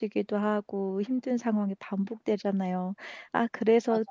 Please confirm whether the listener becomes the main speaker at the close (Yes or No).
No